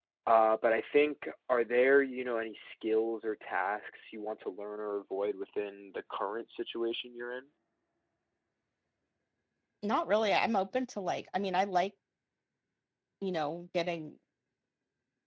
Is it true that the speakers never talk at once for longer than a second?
Yes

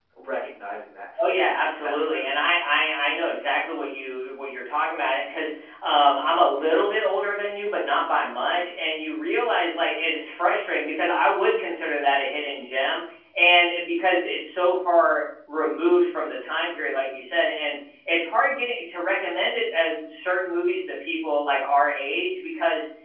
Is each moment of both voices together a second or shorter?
No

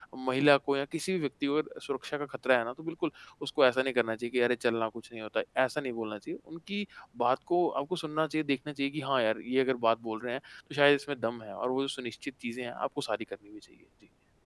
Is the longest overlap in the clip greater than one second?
No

